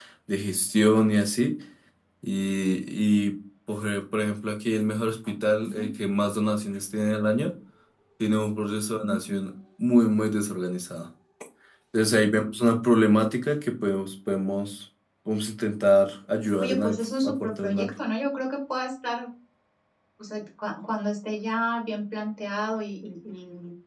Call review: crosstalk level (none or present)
present